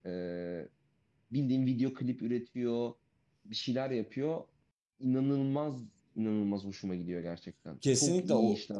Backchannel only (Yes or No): No